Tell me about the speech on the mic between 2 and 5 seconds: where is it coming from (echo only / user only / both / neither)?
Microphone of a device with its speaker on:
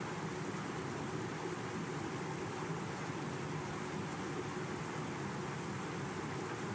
neither